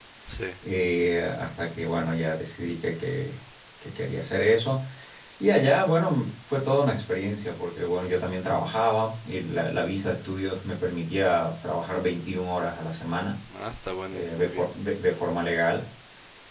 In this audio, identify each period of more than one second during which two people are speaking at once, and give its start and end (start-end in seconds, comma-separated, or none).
none